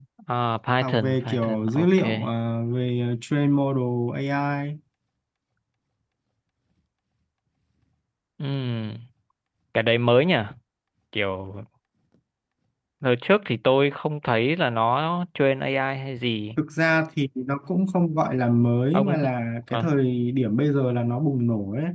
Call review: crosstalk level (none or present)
present